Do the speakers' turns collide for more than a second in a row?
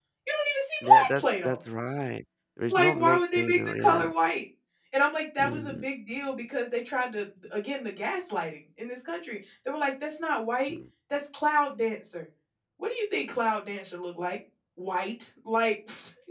Yes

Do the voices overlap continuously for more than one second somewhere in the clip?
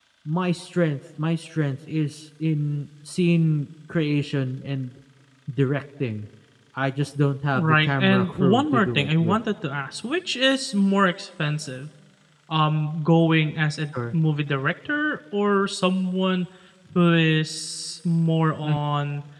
Yes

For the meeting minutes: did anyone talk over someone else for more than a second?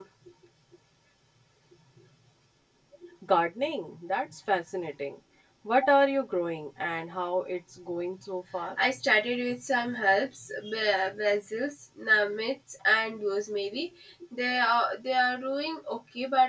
No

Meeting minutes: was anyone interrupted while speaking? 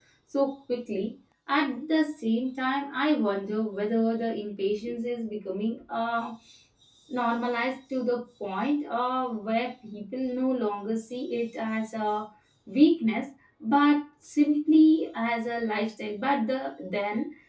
No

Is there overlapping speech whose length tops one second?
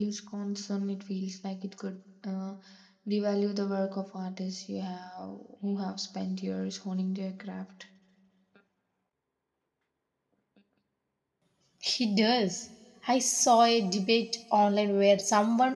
No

